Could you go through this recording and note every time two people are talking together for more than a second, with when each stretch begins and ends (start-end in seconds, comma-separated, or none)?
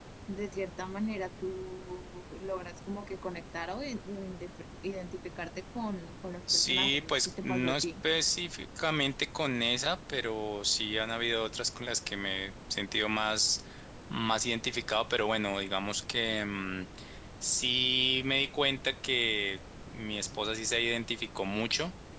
6.5-7.9